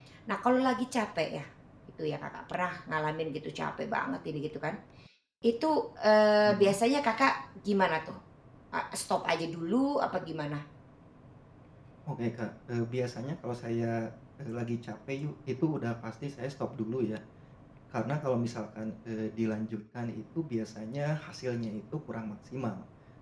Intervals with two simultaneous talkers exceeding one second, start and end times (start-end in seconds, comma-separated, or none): none